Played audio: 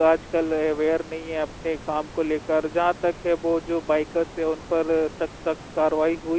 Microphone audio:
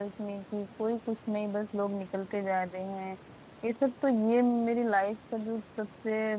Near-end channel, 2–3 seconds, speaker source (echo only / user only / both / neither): user only